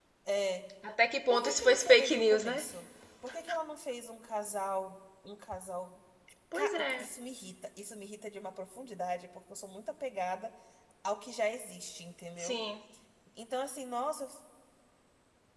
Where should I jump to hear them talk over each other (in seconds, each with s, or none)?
1.3 s